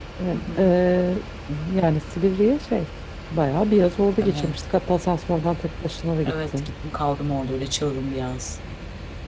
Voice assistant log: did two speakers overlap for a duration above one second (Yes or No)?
No